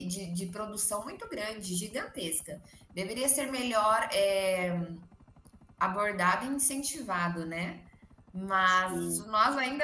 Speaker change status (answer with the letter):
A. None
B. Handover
A